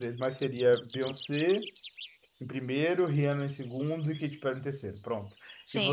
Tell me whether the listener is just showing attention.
No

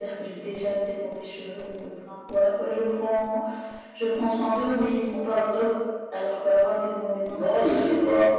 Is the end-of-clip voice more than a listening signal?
Yes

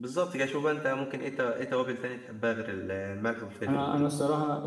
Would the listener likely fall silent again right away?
No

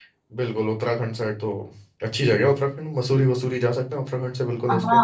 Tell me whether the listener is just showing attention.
No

